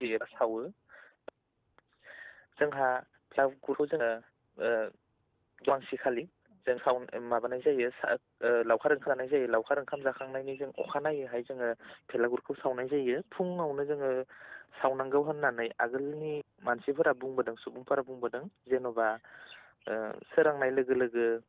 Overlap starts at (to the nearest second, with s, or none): none